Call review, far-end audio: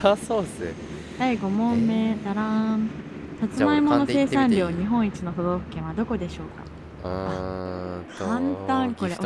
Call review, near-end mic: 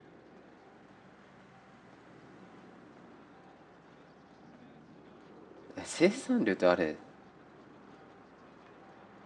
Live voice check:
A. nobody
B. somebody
B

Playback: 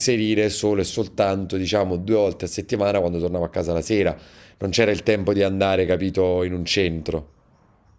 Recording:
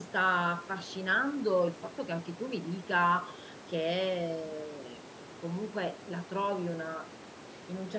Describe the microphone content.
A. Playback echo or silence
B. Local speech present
B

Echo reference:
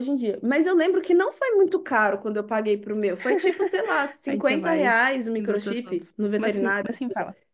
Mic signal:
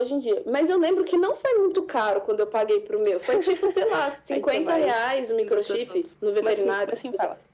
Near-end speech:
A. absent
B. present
A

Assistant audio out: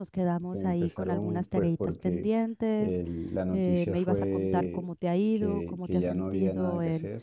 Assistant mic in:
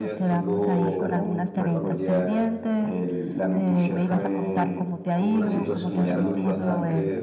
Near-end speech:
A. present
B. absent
A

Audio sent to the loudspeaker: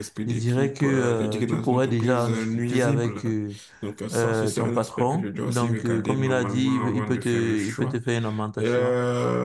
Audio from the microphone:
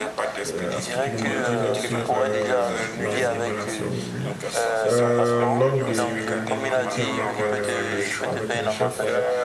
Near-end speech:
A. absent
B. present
B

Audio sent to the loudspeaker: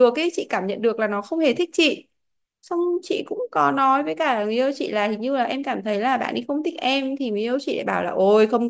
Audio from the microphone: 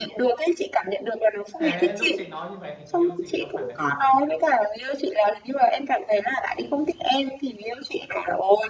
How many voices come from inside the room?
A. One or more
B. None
A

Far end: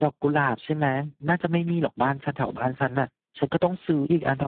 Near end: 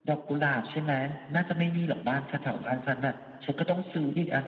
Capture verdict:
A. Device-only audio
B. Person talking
A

